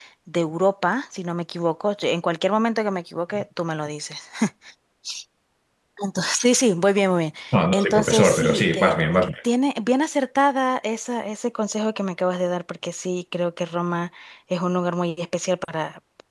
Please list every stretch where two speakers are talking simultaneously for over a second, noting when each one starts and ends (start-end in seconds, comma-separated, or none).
7.7-9.0